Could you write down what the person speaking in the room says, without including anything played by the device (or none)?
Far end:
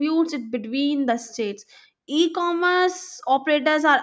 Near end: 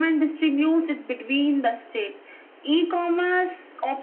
none